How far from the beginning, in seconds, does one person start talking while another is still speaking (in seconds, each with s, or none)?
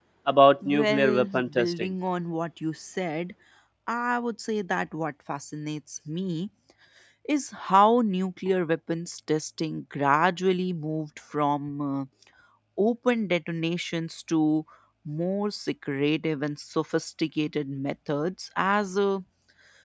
0.7 s